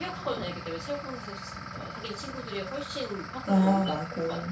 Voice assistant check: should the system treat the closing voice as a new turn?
Yes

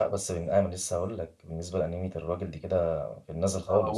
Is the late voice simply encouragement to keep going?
No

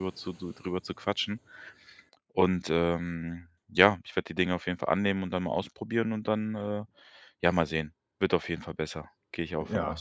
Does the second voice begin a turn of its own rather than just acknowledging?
Yes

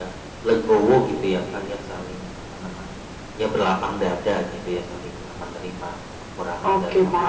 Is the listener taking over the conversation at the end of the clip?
Yes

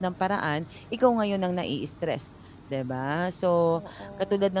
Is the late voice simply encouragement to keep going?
Yes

